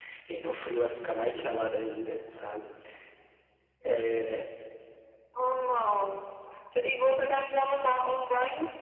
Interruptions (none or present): none